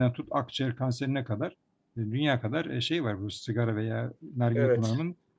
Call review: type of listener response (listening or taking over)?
listening